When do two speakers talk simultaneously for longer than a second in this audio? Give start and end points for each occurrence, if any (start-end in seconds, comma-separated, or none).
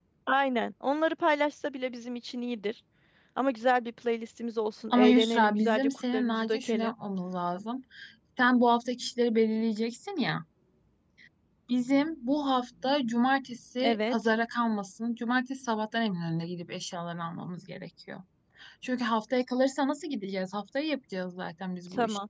4.9-6.9